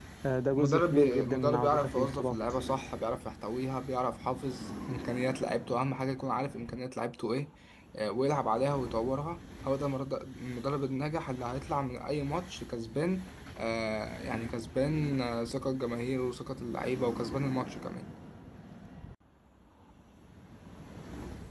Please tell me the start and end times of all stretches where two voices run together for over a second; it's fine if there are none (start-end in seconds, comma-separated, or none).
0.6-2.4